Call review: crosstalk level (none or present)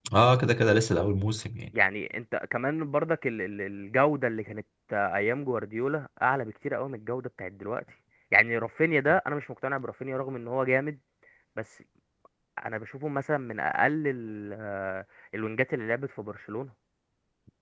none